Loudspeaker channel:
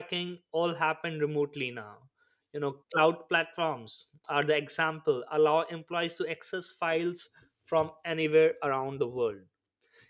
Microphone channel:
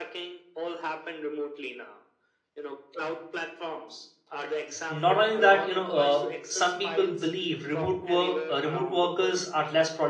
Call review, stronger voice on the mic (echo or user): user